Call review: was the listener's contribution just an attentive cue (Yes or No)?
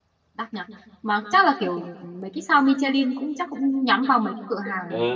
No